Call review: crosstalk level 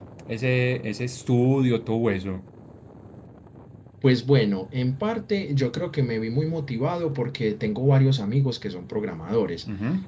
none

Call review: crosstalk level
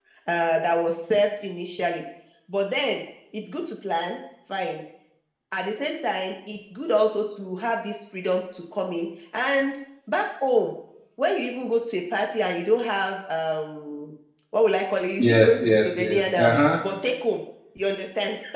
present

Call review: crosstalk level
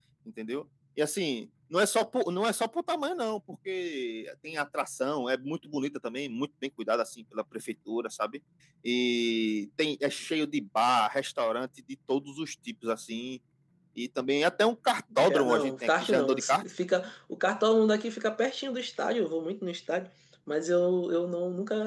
present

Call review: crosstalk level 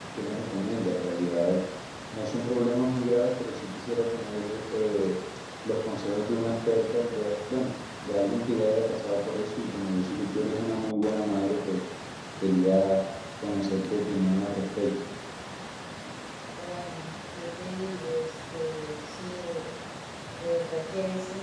none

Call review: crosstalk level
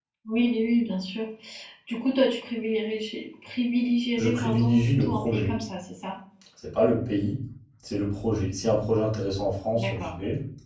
present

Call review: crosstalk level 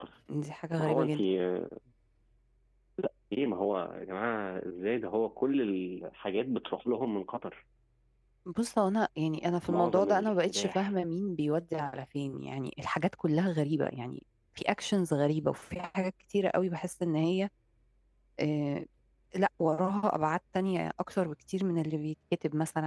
present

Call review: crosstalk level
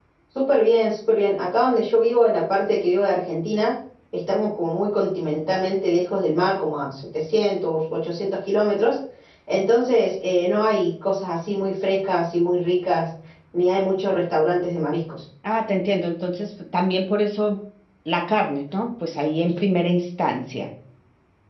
none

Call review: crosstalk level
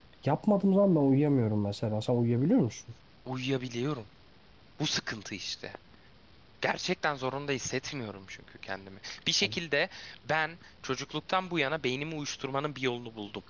none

